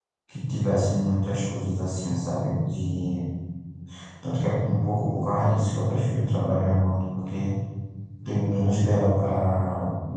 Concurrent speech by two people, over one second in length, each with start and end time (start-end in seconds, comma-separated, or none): none